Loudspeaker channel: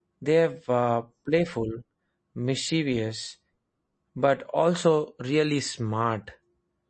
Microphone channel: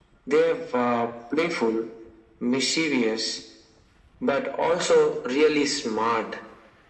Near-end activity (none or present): none